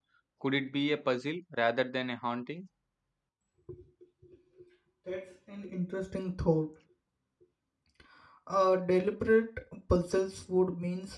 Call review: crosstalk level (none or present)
none